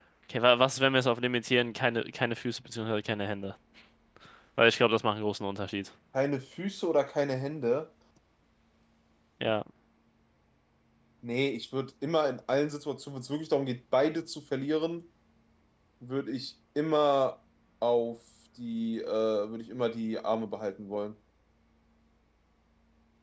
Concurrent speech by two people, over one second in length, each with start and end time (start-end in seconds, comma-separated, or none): none